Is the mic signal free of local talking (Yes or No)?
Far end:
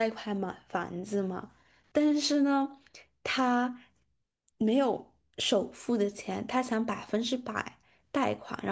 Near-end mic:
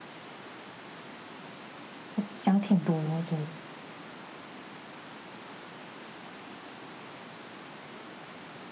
No